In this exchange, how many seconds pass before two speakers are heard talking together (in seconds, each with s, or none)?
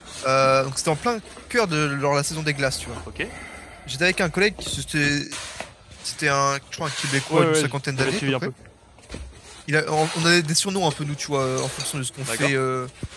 7.3 s